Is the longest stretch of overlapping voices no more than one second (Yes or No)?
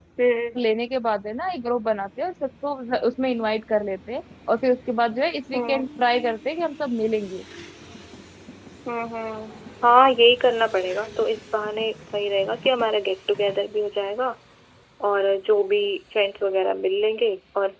Yes